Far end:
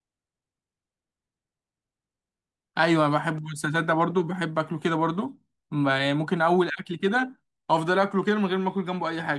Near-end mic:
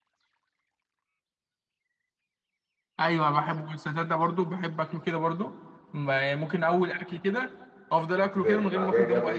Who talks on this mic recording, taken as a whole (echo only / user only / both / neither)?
both